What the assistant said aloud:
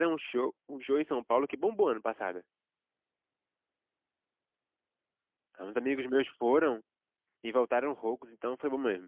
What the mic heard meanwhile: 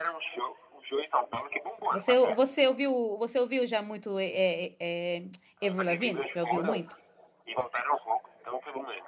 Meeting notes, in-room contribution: present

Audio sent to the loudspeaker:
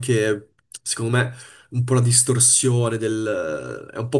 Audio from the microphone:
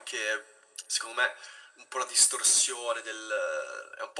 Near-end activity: none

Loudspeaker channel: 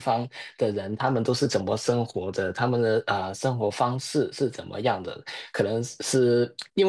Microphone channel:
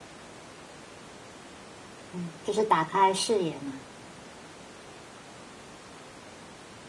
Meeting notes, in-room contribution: present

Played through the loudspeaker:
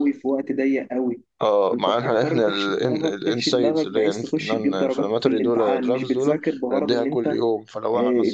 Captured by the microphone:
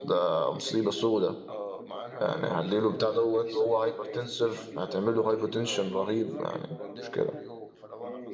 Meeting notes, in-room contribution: present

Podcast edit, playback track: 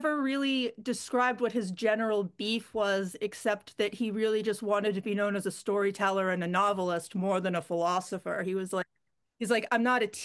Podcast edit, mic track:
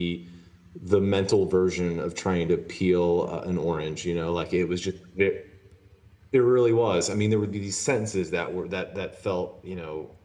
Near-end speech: present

